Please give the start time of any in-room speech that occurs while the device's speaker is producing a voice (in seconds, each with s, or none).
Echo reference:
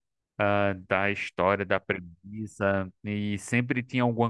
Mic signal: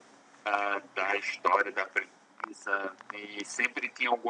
none